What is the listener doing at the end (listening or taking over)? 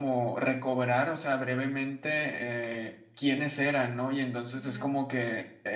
listening